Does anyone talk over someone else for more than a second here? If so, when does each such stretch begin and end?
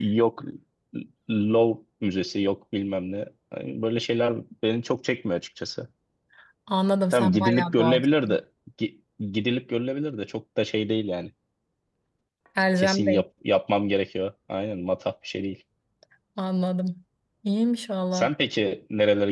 7.1-8.4

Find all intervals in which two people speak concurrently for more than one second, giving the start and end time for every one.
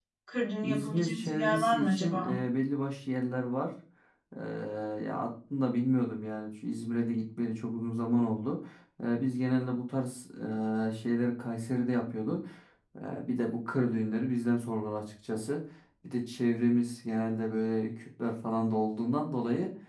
0.6-2.4

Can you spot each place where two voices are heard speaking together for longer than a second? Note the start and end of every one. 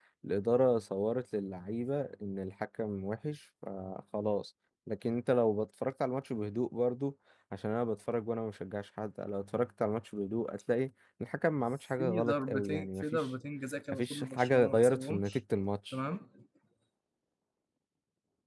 12.0-13.3, 13.9-15.4

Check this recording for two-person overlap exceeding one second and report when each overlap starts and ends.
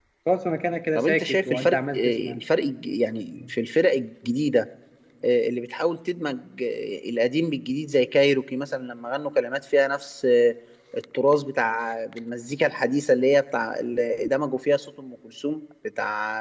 1.0-2.4

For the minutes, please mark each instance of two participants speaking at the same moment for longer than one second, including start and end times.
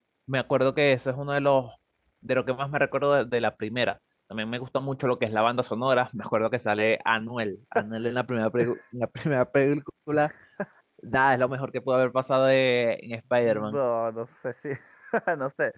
none

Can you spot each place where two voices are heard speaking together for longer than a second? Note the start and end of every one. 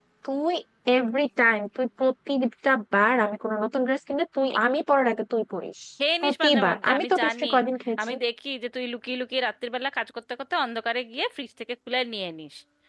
6.2-7.5

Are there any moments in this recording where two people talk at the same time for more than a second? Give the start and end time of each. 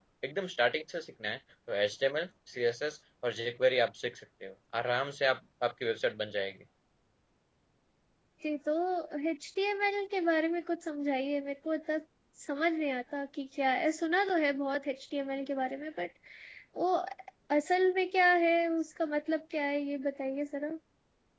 none

